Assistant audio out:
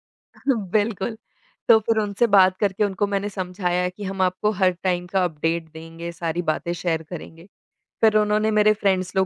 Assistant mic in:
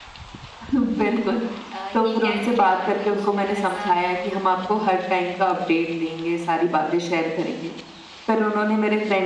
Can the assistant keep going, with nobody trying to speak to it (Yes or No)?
No